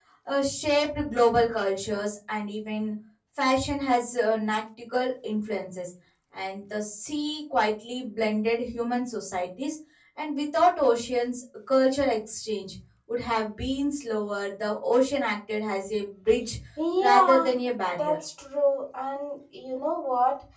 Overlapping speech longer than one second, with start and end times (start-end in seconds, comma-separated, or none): none